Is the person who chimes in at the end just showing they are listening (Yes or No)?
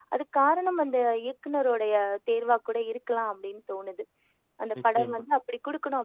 Yes